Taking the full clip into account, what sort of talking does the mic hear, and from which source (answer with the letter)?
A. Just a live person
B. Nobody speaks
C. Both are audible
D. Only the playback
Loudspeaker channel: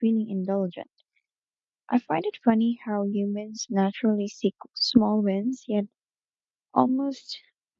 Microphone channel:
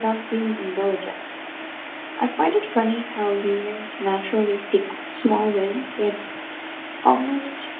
D